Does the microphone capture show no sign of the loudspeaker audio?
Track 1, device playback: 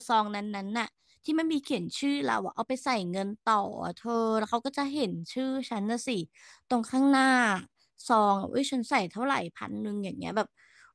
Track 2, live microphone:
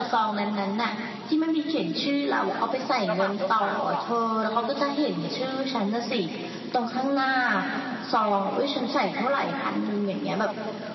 No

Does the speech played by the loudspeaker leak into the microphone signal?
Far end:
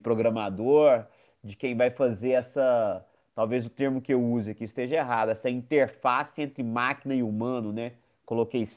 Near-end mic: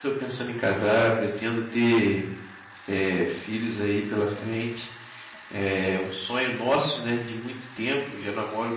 No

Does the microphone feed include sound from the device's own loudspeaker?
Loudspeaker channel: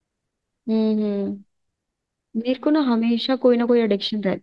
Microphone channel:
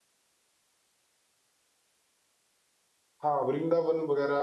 No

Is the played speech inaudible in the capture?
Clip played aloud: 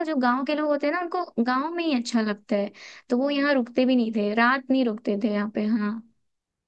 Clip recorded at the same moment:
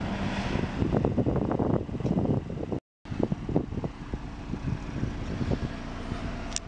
Yes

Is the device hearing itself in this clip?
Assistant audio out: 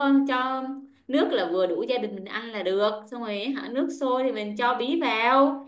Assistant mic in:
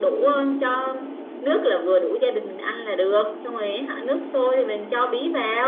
Yes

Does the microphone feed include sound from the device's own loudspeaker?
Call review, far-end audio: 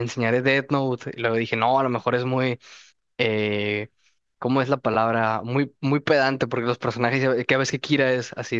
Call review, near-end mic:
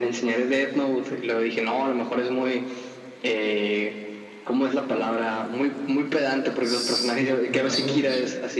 Yes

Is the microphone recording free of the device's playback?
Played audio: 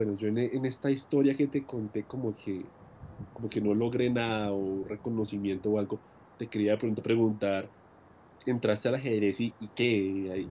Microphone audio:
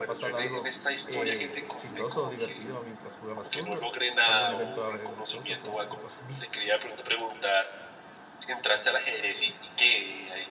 No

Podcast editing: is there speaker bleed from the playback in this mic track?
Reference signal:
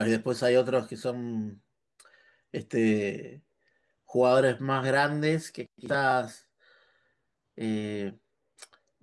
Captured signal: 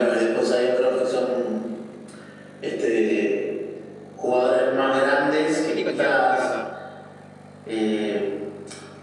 Yes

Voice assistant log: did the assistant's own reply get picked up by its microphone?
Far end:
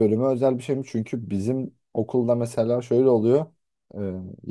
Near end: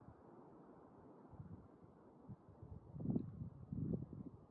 No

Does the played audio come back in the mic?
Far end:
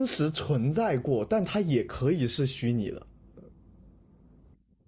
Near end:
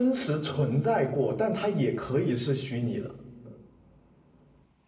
Yes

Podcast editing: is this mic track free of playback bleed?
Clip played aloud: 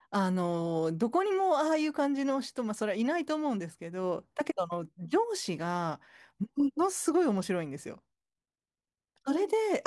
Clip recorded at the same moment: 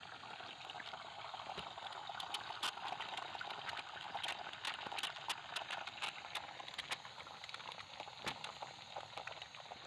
Yes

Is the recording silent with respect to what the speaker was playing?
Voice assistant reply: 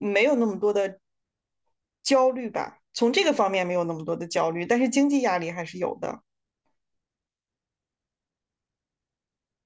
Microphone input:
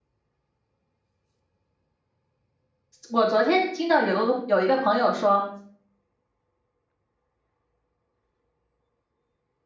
Yes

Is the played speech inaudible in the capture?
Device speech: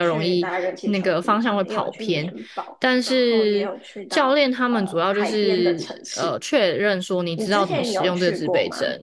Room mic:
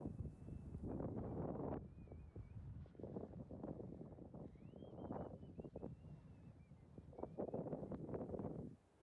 Yes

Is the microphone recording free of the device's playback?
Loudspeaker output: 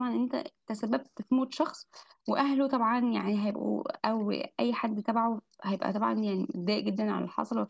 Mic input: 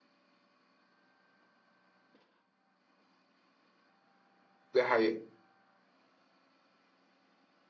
Yes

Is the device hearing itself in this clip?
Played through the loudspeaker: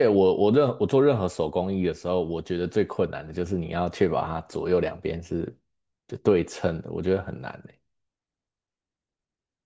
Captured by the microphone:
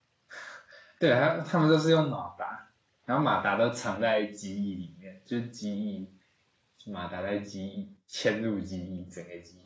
No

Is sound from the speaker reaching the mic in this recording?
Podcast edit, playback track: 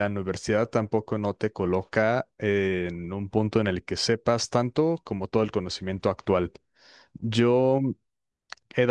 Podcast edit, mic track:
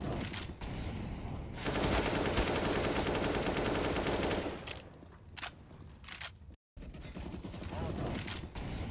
No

